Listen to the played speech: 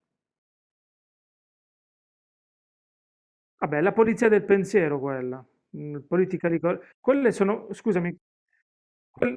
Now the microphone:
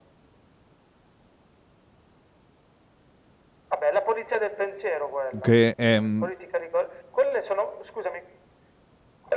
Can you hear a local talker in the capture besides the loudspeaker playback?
Yes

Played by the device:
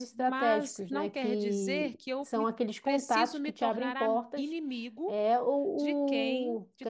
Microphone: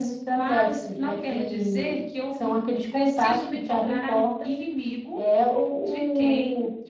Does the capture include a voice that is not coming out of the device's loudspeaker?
No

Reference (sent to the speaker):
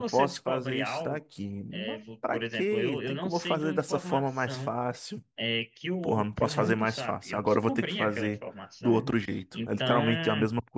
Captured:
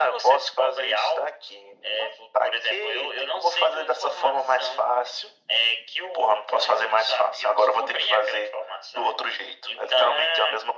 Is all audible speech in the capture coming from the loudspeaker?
Yes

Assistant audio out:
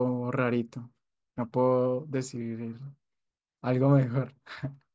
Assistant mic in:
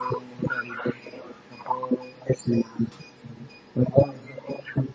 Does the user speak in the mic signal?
No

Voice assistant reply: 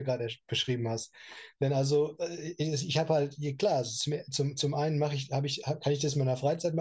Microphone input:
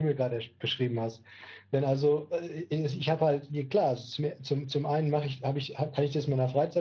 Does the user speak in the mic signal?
No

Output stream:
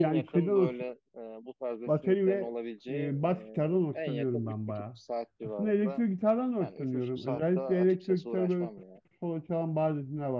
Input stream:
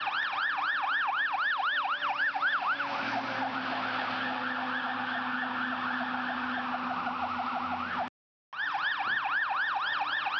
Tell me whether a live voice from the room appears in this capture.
No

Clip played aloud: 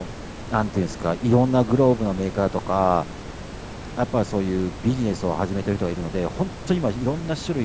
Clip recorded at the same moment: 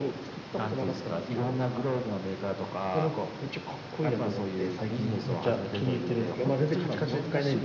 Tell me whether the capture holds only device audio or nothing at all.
No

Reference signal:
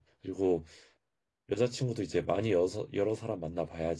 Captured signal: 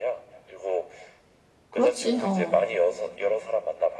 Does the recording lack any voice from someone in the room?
No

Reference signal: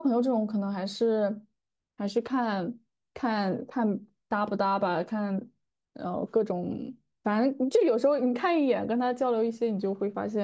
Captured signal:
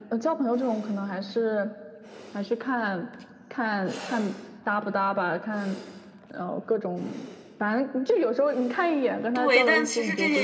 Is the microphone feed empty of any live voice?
No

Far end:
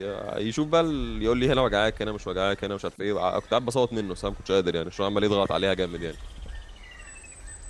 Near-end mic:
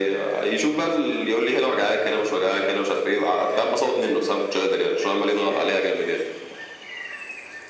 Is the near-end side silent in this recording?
Yes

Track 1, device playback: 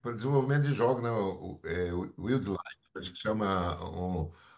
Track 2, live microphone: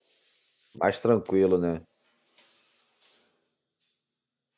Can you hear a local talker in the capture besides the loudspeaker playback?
Yes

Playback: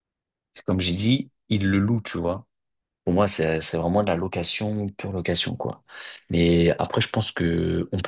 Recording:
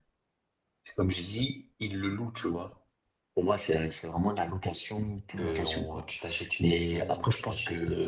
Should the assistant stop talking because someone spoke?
Yes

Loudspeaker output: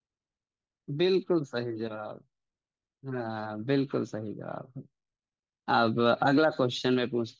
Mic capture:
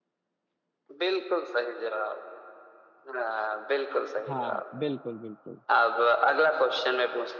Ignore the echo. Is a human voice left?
Yes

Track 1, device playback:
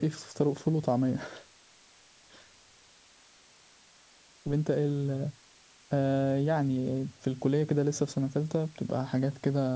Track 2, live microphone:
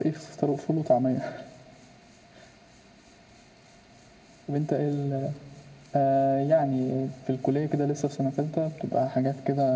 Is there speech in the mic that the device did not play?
No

